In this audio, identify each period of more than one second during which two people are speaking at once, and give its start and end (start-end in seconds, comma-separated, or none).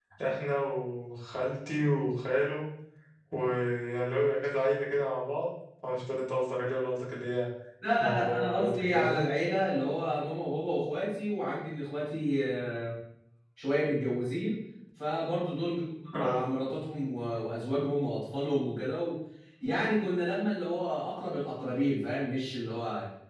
8.0-9.2